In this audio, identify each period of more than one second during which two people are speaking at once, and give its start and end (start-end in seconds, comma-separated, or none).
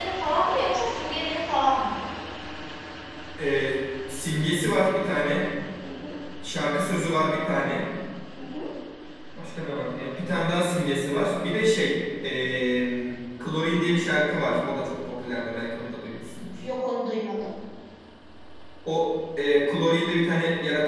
none